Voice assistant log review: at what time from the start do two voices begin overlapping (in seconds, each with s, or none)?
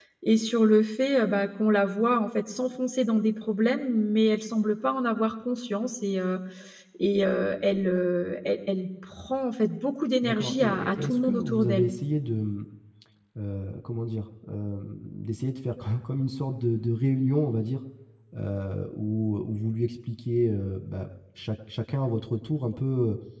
10.2 s